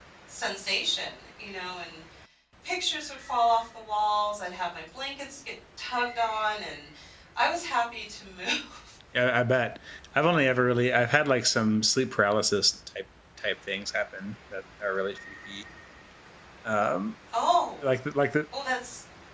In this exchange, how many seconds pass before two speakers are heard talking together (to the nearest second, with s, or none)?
none